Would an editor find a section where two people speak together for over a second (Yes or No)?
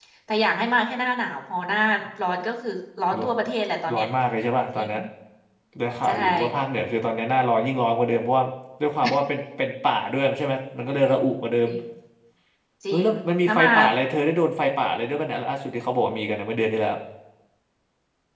No